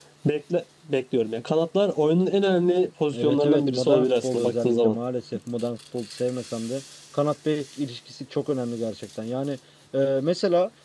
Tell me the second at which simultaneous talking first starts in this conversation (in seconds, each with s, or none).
3.1 s